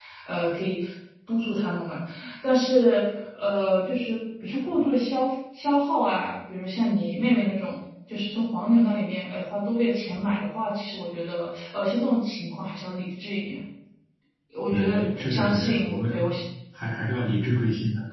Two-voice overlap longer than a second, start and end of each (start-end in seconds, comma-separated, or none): 14.7-16.3